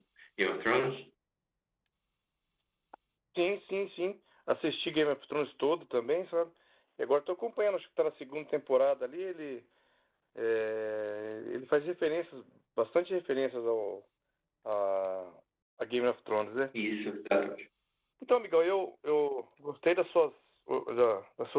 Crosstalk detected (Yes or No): No